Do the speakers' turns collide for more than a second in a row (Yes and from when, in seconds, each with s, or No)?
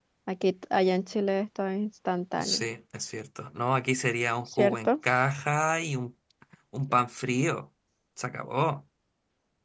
No